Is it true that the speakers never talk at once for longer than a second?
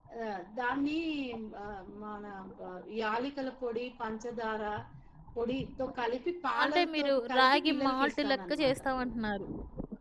No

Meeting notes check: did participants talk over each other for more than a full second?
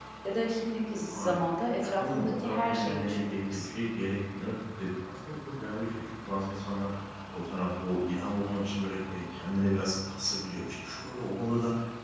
Yes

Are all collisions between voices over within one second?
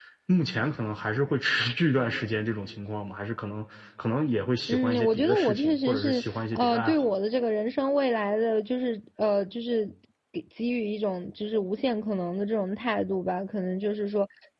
No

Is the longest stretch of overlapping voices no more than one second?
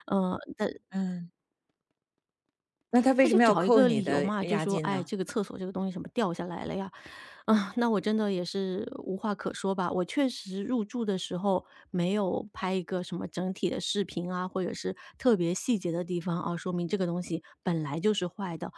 No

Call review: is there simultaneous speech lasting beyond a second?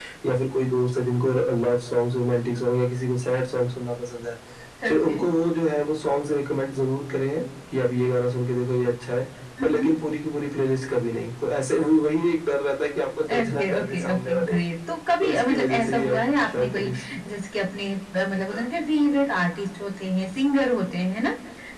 Yes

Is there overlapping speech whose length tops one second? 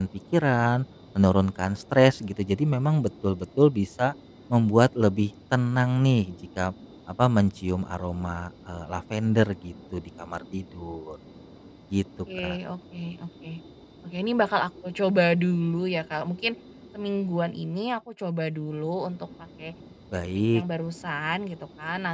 No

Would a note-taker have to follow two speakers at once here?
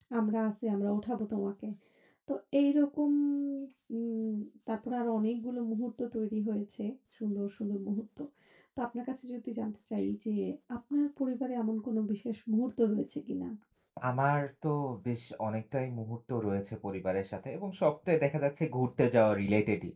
No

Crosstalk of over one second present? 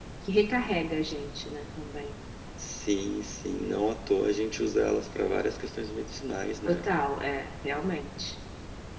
No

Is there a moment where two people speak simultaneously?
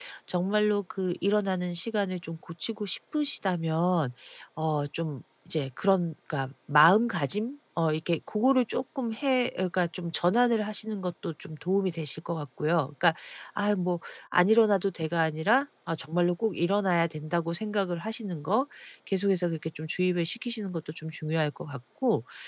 No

